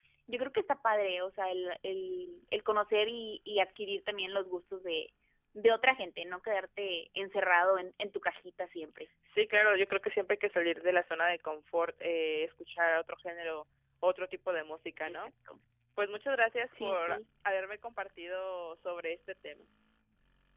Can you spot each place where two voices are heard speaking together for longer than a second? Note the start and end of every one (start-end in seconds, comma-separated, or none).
none